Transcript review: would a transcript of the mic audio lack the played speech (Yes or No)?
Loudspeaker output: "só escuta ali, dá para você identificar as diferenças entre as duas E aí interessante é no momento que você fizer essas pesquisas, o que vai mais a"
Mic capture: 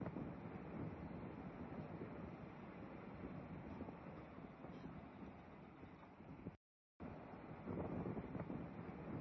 Yes